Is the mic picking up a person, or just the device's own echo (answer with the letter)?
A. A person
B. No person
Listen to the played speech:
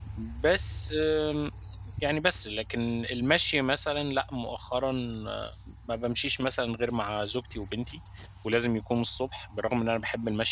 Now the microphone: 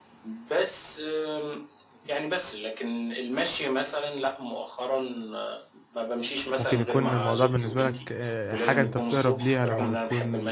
A